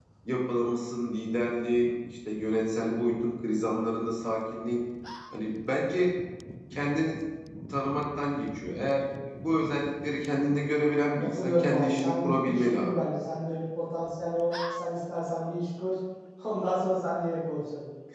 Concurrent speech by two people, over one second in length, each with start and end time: 11.2-13.0

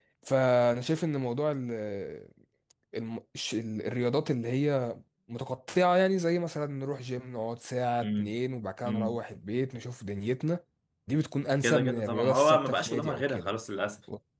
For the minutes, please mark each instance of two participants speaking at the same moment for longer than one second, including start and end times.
11.6-13.5

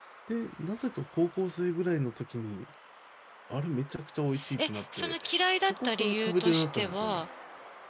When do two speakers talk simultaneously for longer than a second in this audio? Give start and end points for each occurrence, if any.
4.6-7.2

